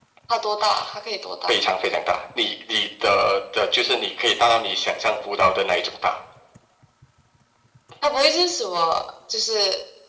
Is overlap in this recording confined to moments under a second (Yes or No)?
Yes